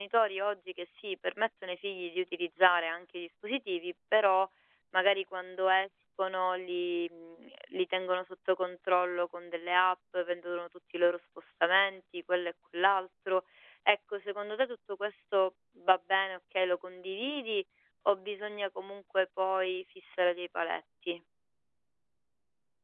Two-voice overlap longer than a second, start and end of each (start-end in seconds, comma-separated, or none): none